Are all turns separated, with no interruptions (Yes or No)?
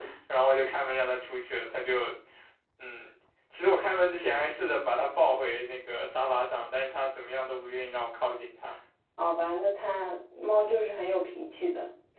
Yes